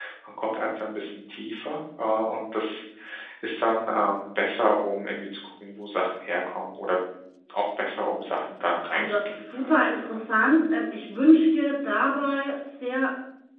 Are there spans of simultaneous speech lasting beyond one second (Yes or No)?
Yes